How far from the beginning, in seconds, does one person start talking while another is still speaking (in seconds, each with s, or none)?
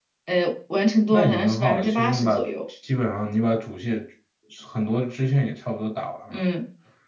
1.1 s